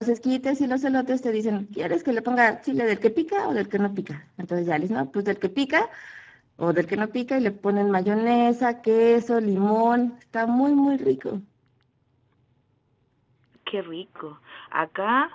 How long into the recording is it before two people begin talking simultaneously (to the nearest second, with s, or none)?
none